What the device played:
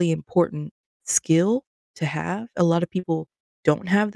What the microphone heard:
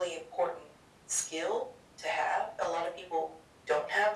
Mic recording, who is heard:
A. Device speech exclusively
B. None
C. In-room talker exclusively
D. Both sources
A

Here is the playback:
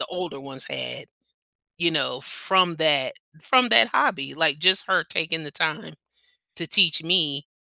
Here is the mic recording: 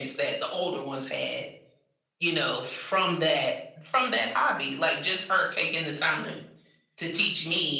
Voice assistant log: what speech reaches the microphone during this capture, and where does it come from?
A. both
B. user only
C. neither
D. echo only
D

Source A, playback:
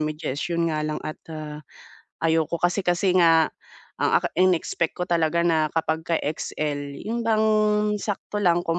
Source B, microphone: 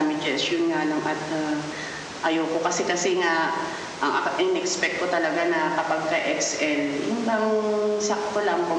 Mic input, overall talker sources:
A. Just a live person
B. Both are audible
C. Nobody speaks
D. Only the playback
D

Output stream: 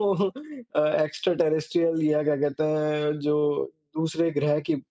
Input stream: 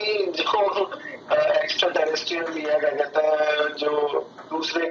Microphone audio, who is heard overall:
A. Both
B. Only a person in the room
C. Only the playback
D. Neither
C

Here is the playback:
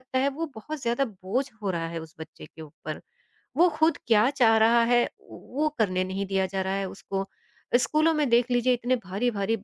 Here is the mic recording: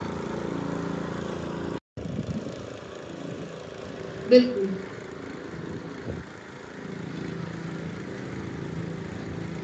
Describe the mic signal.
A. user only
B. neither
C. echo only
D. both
A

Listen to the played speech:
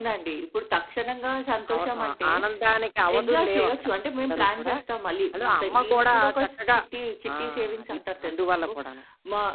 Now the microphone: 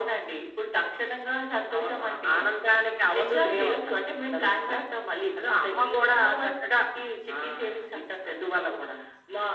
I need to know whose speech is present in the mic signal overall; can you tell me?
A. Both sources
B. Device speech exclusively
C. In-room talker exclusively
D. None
B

